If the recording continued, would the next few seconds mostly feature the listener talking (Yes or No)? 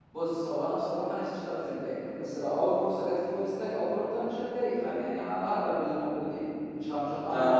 Yes